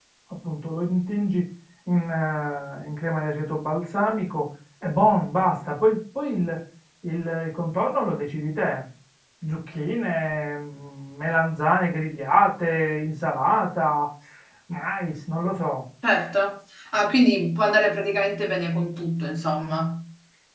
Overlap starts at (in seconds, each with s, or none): none